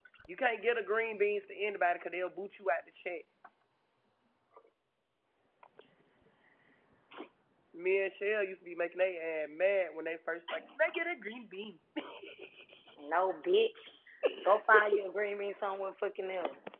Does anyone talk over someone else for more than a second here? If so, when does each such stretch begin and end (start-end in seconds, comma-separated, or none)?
none